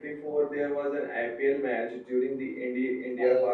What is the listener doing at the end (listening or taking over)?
taking over